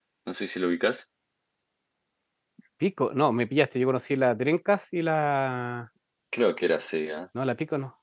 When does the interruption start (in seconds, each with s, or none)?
none